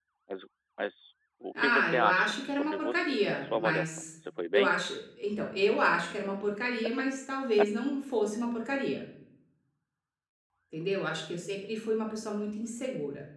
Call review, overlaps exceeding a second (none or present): present